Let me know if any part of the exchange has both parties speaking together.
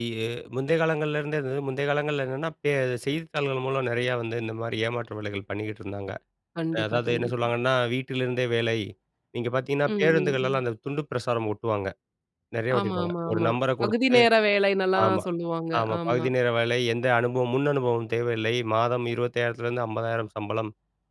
Yes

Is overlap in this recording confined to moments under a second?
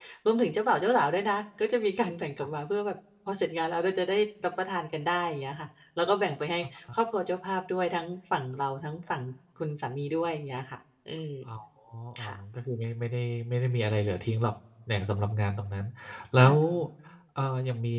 Yes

